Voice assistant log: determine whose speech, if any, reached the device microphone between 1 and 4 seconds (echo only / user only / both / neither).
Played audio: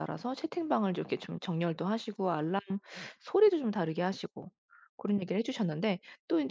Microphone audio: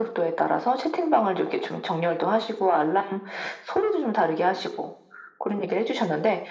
echo only